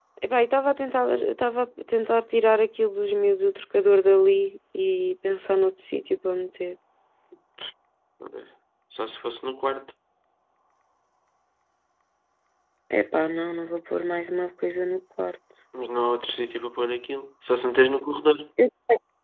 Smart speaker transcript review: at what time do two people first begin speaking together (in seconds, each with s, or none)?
none